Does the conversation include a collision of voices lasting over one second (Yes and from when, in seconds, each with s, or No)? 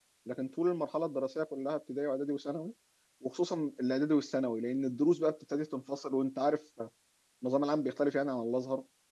No